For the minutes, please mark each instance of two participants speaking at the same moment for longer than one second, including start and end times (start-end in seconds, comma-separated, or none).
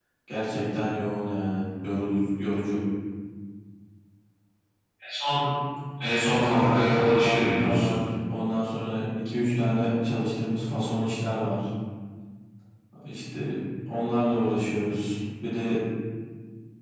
6.3-7.8